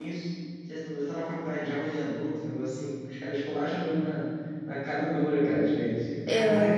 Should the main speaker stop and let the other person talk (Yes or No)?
Yes